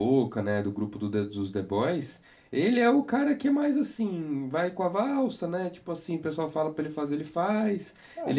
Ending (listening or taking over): taking over